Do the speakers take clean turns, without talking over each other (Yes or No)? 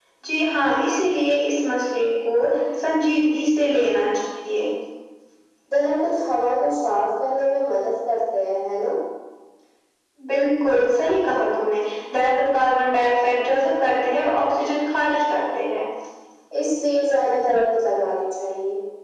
Yes